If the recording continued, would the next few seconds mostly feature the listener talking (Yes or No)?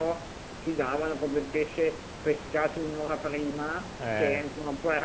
No